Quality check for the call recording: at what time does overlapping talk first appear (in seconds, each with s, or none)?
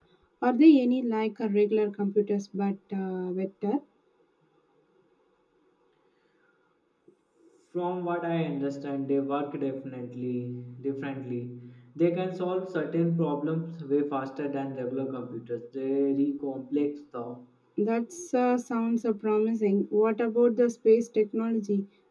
none